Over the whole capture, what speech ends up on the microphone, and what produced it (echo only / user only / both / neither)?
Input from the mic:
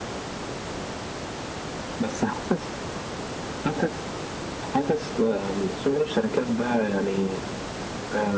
echo only